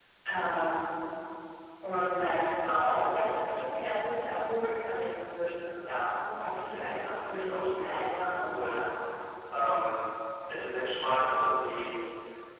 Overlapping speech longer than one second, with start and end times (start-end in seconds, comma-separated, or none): 6.6-8.7